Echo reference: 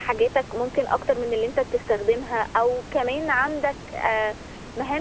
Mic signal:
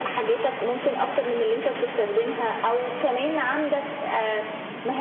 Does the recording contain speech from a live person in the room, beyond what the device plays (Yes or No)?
No